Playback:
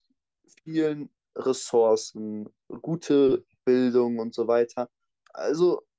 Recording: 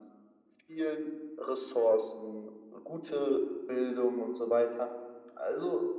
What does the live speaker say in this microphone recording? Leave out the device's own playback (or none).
none